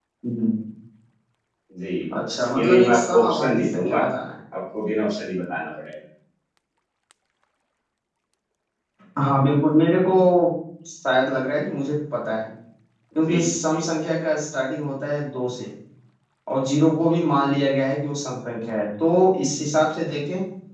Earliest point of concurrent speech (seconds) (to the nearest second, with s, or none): 3 s